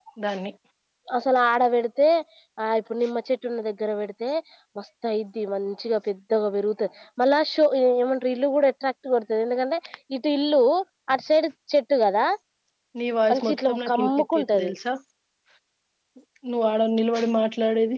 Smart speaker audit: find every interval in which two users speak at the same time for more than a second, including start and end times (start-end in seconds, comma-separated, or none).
13.3-14.7